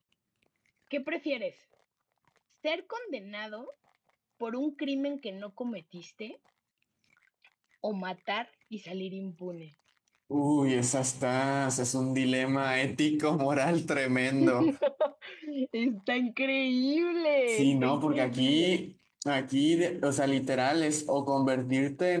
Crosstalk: present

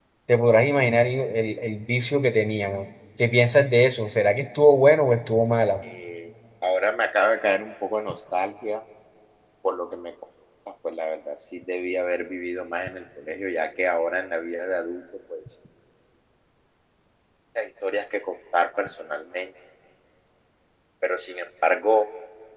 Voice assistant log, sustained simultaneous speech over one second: none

